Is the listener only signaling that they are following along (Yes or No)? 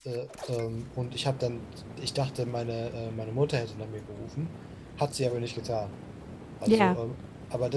Yes